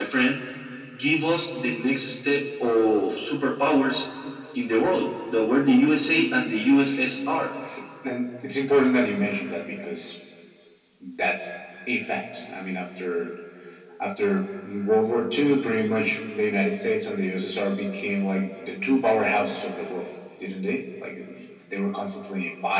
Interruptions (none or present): none